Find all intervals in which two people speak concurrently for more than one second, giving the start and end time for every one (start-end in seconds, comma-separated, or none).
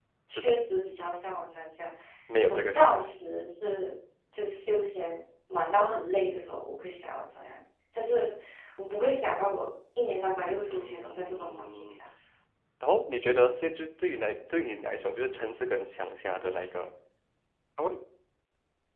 10.7-12.0